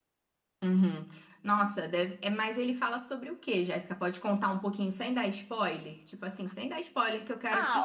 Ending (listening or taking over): taking over